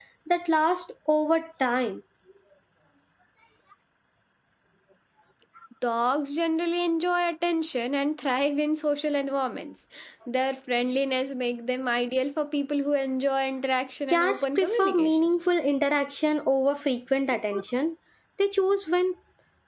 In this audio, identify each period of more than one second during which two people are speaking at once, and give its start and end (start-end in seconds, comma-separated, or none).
14.1-15.3